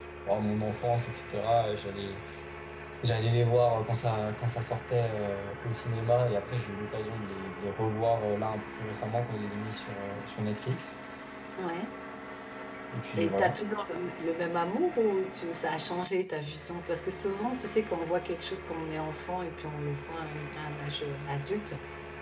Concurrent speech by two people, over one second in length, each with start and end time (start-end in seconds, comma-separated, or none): none